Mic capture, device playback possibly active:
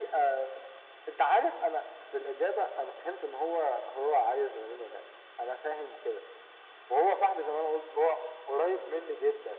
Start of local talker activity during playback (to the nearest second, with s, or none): none